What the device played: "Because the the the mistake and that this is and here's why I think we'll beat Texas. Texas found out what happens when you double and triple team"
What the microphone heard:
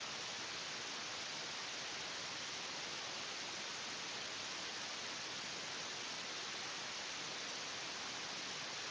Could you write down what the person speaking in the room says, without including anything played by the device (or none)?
none